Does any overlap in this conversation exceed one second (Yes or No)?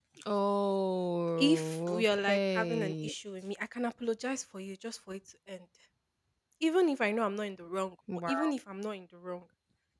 Yes